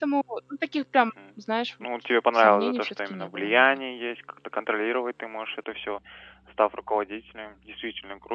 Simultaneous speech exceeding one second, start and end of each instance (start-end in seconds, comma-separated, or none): 2.3-3.6